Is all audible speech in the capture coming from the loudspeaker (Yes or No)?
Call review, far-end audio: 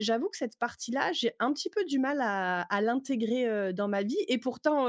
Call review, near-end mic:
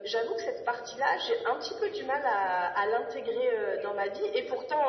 Yes